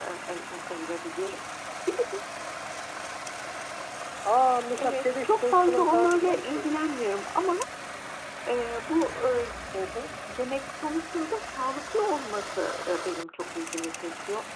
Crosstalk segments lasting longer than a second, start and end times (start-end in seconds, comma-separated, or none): 4.7-6.8